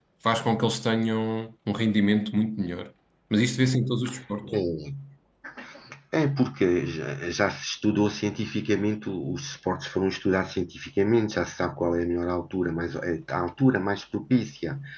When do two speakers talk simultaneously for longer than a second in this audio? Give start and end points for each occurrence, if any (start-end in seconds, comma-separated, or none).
none